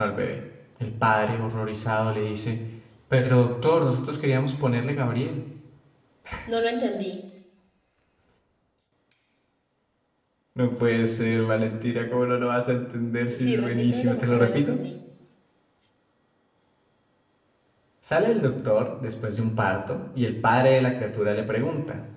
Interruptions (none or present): present